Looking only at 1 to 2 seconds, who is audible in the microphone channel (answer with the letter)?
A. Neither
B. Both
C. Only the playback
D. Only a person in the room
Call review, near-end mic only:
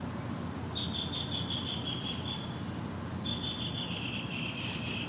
A